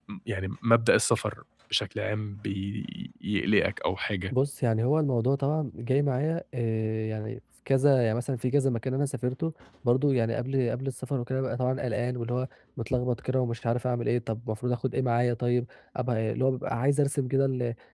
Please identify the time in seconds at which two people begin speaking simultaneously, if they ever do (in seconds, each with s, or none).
none